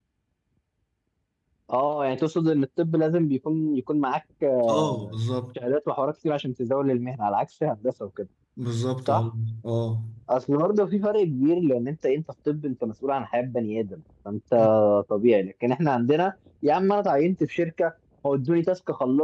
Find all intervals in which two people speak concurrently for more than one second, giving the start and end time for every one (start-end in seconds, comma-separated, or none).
none